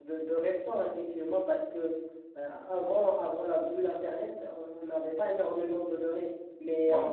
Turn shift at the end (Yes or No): No